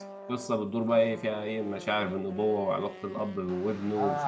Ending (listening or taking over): taking over